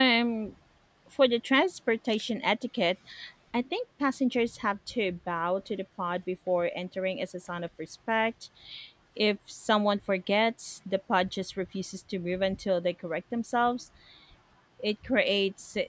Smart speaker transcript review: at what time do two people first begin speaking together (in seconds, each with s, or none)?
none